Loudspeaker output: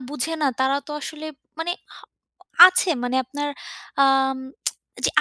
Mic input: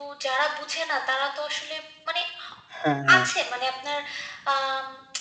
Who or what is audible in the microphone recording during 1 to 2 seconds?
echo only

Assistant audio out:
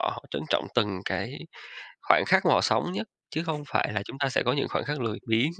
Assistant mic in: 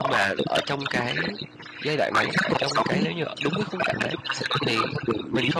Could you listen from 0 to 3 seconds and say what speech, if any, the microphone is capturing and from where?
both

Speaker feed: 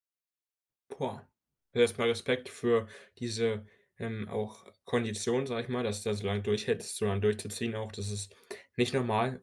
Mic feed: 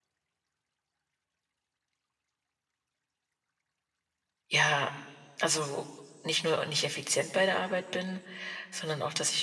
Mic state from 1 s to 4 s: neither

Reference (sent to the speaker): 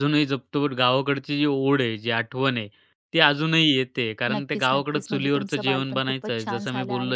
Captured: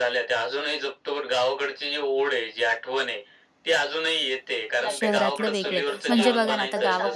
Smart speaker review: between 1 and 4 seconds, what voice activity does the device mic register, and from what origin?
echo only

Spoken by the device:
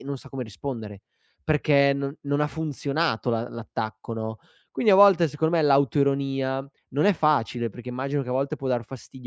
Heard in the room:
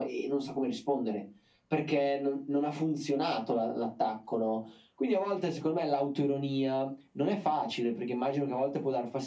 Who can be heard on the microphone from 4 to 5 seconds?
echo only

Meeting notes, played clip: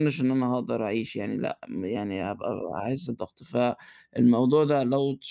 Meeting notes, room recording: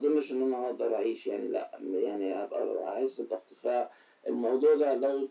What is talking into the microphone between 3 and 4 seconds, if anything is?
echo only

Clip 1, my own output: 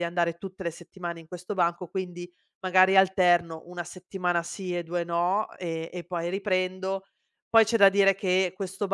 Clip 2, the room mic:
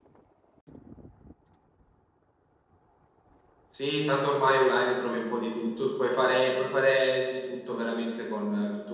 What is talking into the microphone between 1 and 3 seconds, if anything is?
neither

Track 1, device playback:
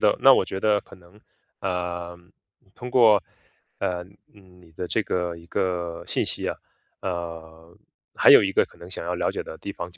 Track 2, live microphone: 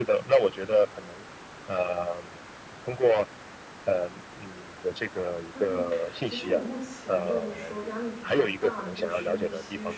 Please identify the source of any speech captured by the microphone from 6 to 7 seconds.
both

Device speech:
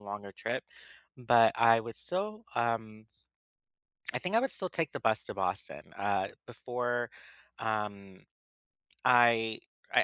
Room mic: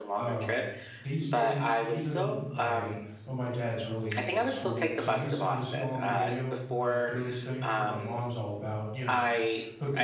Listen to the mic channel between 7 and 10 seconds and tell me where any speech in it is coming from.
both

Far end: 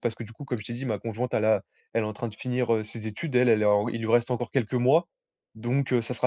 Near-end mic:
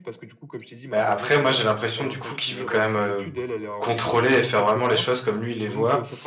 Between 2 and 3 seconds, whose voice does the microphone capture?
both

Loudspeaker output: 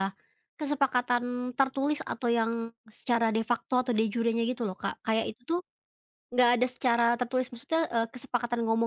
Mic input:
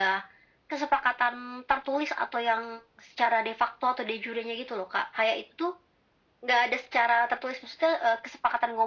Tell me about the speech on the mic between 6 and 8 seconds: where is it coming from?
echo only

